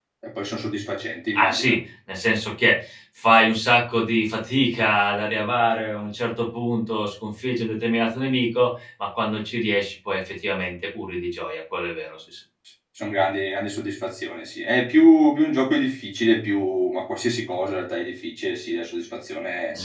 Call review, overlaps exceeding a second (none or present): none